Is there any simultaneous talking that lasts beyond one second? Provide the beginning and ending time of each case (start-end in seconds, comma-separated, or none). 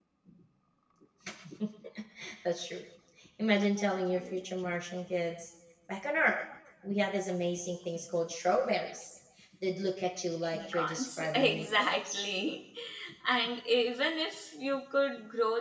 10.5-12.3